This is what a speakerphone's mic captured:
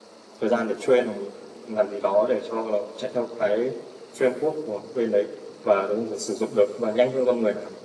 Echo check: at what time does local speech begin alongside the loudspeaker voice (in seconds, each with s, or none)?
none